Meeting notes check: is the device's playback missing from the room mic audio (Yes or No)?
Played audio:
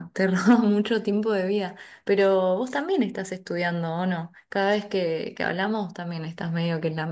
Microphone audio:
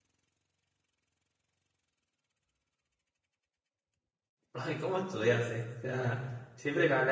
Yes